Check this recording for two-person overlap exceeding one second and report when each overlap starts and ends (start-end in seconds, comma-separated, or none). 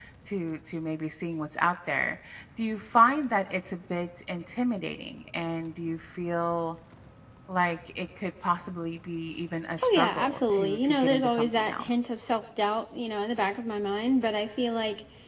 9.8-11.9